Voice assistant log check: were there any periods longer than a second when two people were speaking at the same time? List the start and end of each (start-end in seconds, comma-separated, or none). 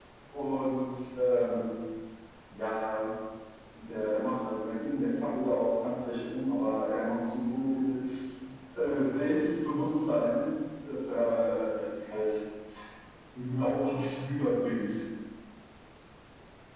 none